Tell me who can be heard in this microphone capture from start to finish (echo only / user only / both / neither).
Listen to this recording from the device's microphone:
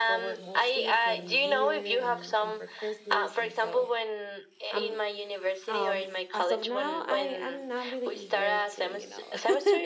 both